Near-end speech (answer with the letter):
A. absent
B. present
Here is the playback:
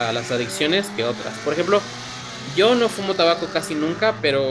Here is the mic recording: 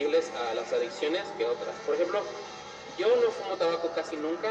A